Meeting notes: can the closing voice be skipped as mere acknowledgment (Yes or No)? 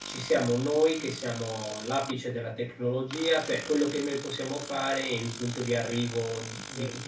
Yes